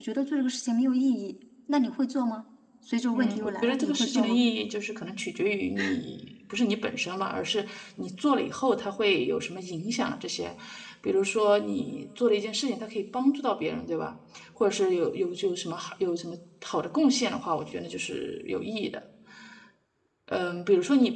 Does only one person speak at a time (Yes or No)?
No